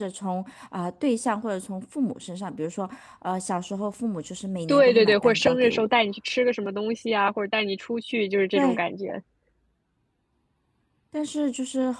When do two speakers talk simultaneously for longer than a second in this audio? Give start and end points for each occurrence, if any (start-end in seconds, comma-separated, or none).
4.7-6.0